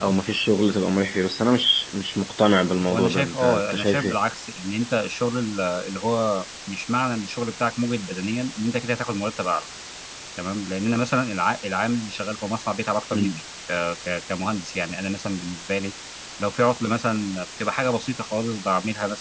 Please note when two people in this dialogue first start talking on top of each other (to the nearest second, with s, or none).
3 s